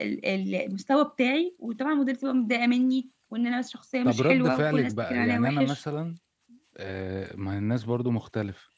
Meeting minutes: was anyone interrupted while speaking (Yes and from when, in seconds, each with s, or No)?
Yes, from 4.0 s